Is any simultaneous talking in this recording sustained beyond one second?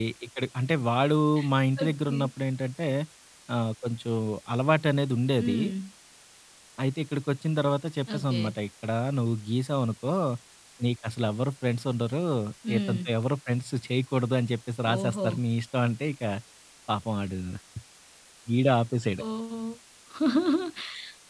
No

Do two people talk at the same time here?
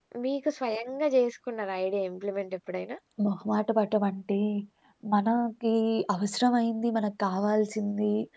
No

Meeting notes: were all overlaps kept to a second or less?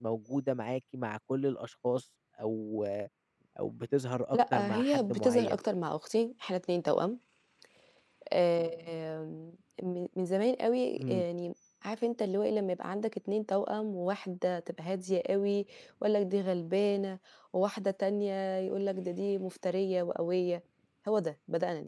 No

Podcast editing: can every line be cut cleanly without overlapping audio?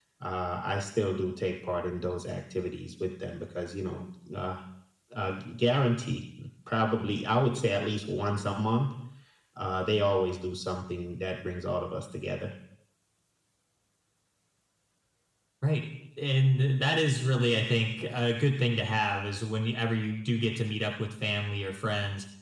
Yes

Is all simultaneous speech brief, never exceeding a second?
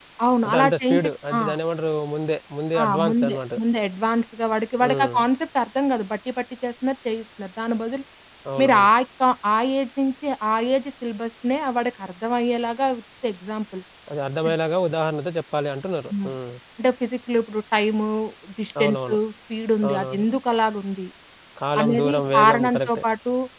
No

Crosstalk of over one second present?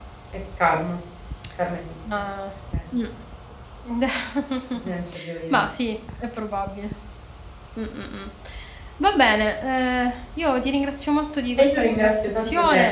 Yes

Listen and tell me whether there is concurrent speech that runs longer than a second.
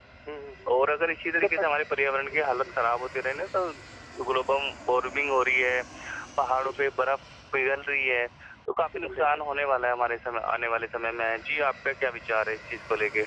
No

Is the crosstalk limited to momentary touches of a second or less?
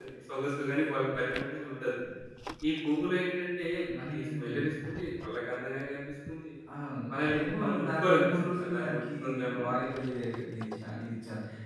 No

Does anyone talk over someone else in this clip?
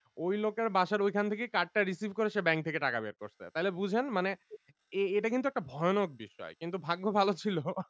No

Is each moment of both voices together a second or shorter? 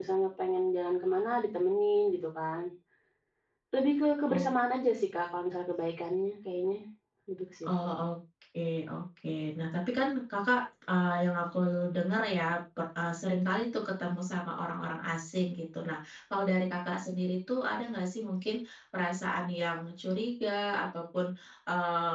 Yes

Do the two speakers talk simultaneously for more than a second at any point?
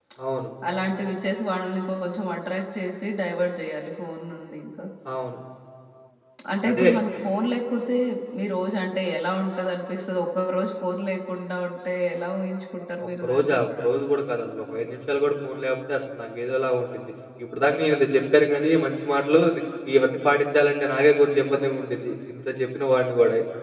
No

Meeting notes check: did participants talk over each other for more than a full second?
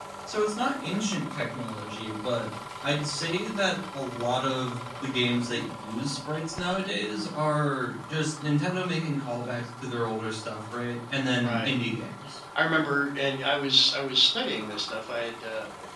No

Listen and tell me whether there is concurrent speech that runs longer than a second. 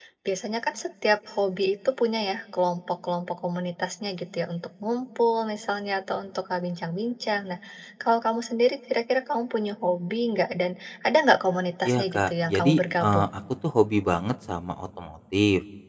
Yes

